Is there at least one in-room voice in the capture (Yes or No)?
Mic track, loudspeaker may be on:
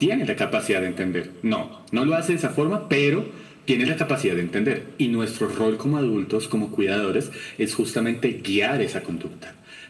No